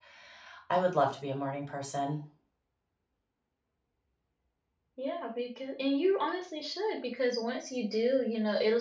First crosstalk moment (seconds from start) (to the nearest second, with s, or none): none